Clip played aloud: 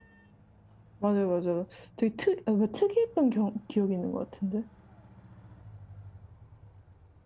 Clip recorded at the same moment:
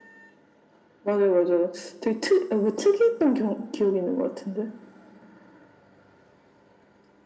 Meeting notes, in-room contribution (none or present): none